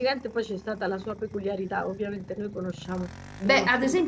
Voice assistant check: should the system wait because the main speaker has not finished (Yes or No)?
No